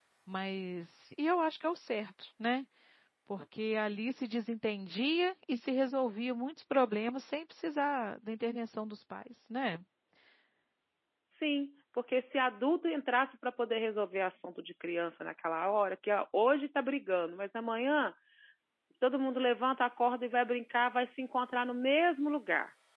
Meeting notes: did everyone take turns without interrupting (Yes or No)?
Yes